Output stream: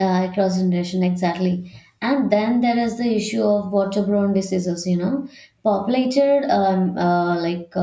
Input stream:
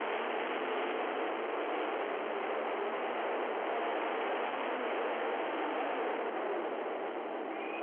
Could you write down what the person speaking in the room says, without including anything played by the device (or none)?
none